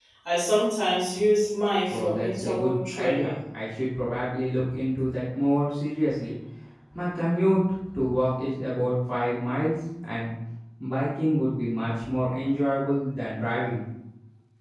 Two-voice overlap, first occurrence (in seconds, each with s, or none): 1.9 s